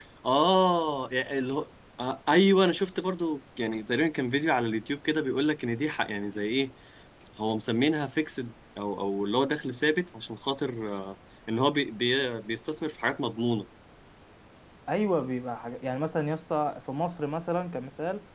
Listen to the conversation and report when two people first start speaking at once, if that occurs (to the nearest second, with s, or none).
none